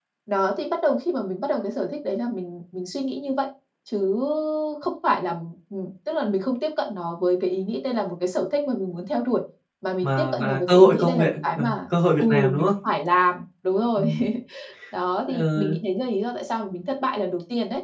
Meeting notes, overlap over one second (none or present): present